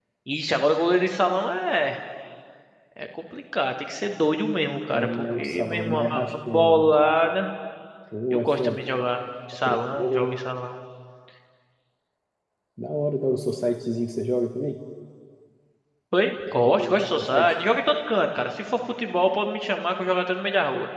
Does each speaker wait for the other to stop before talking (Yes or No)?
No